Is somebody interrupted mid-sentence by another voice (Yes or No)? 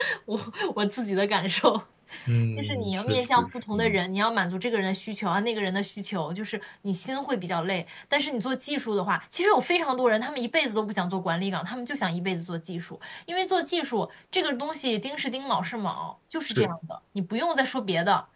Yes